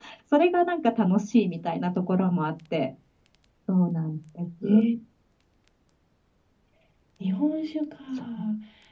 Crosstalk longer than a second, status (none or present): none